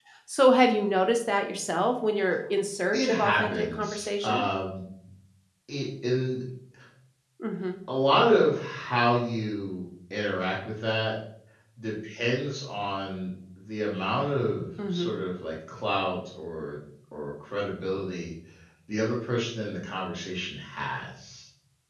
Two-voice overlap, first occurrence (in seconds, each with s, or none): 2.9 s